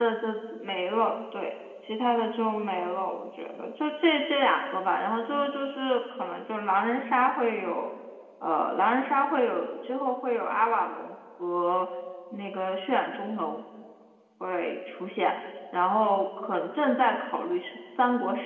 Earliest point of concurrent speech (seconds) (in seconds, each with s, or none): none